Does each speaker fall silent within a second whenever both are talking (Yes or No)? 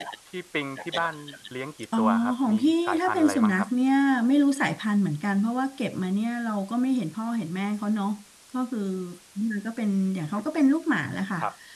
No